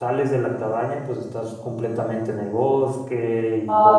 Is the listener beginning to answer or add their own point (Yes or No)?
Yes